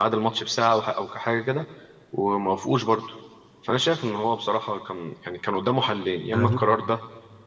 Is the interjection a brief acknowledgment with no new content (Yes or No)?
Yes